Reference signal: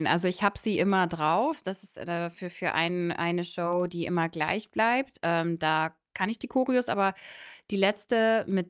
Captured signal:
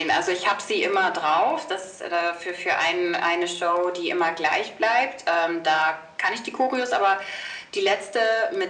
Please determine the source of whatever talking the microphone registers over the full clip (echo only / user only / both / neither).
echo only